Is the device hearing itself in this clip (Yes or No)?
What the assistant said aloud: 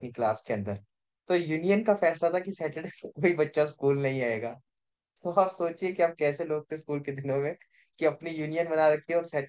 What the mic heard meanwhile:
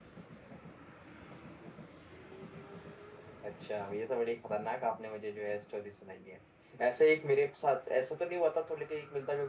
No